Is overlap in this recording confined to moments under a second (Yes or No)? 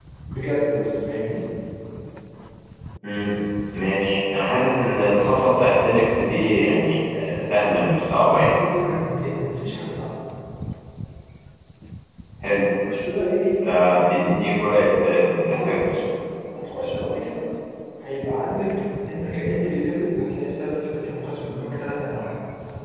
Yes